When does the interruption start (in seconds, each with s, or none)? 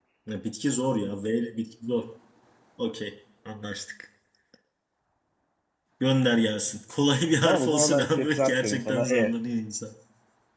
7.4 s